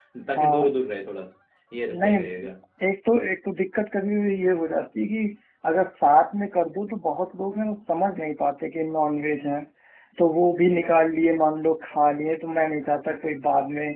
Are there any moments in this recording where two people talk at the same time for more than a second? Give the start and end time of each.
none

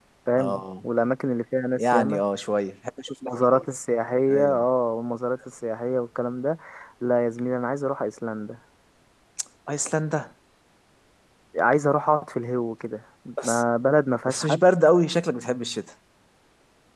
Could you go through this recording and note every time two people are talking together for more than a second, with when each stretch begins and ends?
none

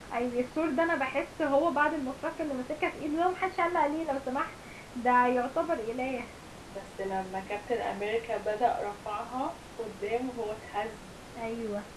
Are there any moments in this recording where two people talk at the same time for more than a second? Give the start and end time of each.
none

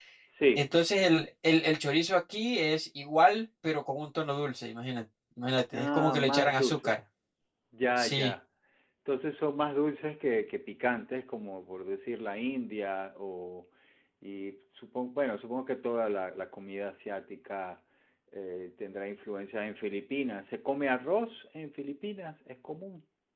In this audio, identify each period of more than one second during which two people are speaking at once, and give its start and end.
5.7-7.0

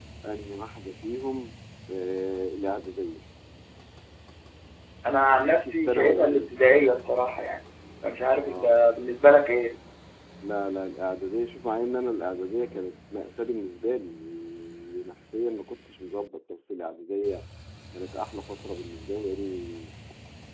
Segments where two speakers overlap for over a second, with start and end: 5.2-6.5

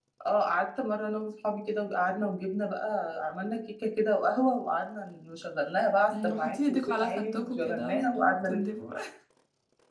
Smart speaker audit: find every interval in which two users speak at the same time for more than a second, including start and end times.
6.1-8.6

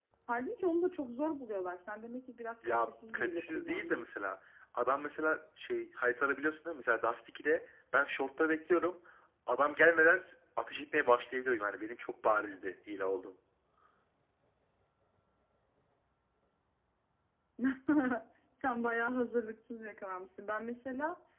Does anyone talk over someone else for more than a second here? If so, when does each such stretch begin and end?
2.6-4.1

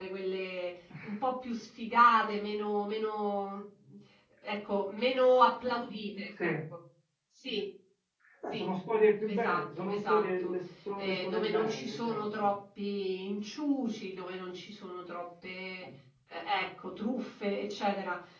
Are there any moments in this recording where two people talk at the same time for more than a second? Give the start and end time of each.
9.3-10.5, 11.0-12.5

